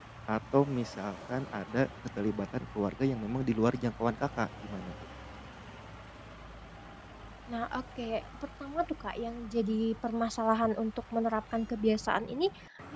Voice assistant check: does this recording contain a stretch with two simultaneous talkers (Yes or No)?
No